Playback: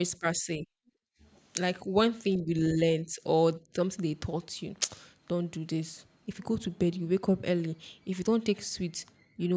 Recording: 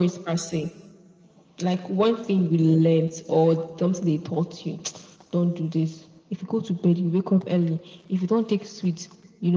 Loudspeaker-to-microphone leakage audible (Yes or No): Yes